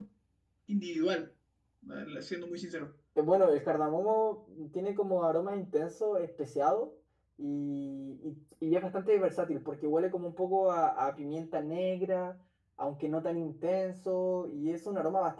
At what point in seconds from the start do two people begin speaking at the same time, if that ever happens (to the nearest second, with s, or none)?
none